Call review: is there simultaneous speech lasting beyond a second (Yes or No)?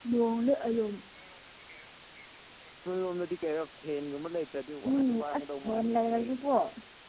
Yes